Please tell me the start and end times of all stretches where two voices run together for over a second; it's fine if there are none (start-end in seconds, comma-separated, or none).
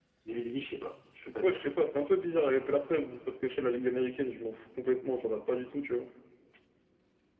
none